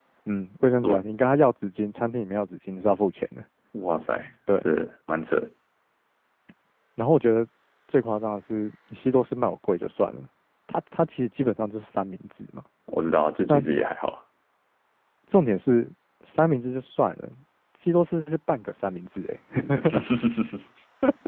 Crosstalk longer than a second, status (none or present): none